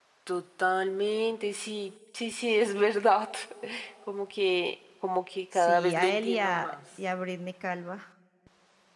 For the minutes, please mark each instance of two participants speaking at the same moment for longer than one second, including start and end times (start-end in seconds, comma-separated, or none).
5.5-6.8